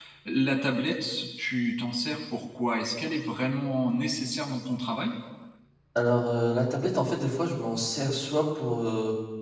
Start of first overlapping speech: none

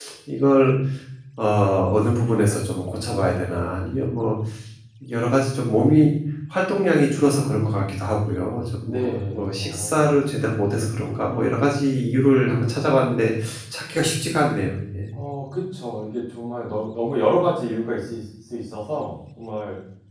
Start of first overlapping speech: 8.8 s

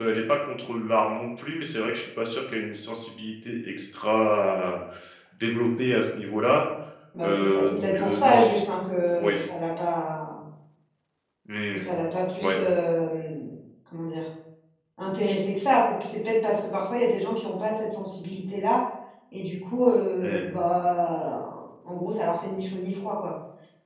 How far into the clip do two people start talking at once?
7.2 s

